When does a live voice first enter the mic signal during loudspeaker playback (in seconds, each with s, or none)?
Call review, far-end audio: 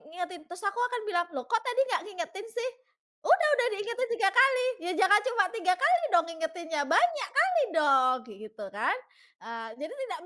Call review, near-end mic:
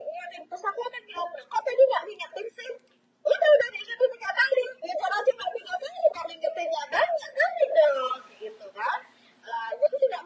none